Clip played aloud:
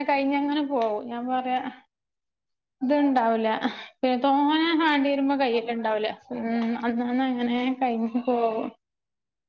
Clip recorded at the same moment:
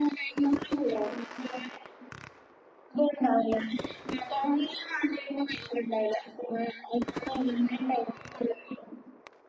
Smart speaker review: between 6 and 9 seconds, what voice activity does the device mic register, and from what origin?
echo only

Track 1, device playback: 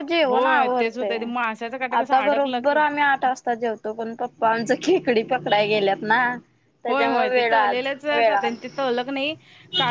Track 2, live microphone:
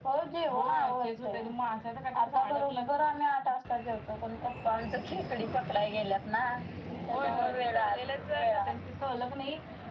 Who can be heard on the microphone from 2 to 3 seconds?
echo only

